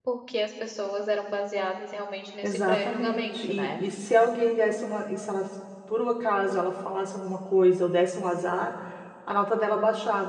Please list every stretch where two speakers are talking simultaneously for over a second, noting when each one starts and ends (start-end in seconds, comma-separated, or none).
2.4-3.8